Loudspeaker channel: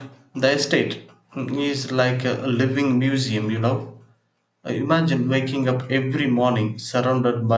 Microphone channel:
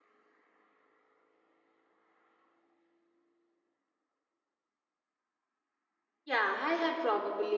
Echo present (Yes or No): No